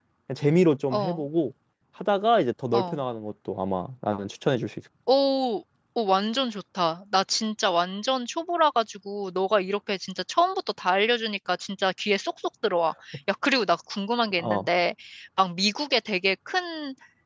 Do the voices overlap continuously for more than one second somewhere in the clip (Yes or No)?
No